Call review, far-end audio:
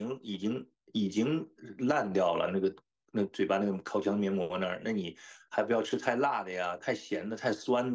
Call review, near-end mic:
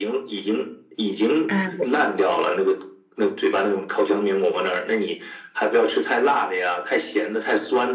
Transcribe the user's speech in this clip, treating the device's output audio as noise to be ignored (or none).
哎，我